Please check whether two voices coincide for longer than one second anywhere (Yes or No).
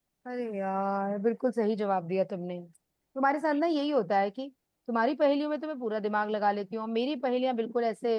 No